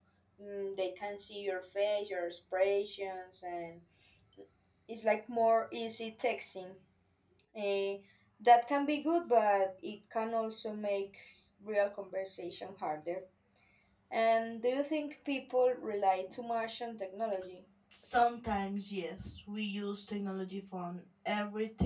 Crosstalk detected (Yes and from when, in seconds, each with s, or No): No